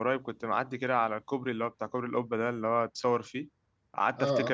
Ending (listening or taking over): listening